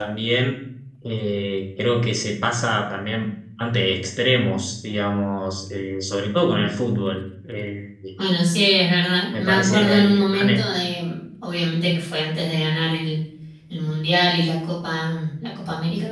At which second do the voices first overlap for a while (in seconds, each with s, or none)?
9.3 s